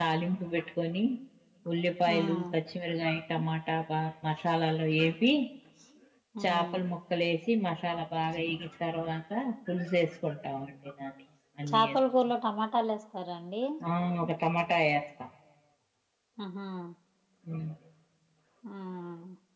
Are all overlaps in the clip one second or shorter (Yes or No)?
Yes